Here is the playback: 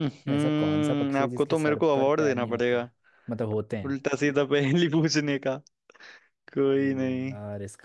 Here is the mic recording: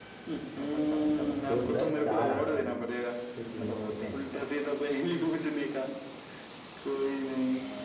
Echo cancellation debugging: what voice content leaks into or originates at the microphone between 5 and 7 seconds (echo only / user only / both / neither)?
echo only